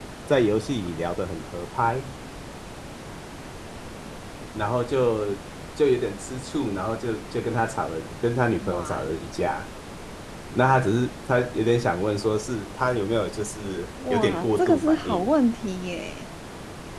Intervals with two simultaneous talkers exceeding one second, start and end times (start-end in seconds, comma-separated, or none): 14.1-15.3